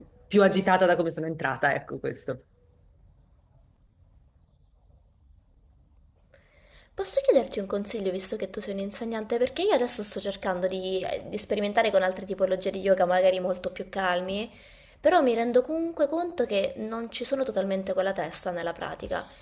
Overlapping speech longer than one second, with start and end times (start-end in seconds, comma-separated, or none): none